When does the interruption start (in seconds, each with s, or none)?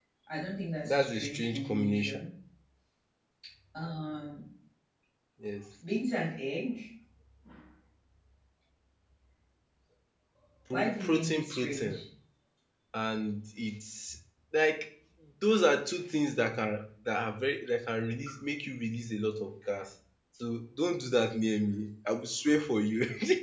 0.8 s